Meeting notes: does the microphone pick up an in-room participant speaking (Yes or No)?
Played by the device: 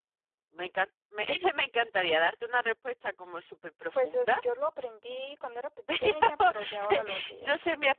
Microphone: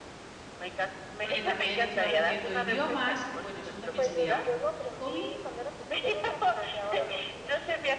Yes